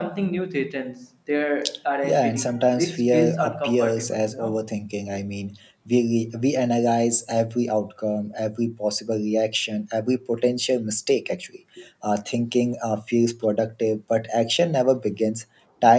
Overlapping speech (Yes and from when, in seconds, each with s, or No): Yes, from 2.0 s